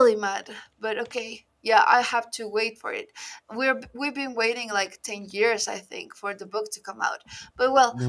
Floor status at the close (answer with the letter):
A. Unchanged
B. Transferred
A